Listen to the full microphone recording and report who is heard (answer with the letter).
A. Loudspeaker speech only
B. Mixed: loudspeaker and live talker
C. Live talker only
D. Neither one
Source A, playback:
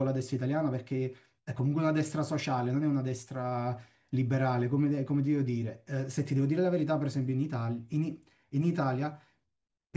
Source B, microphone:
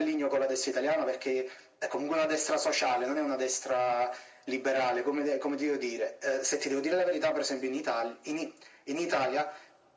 A